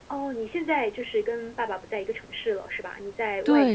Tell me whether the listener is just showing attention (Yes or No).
No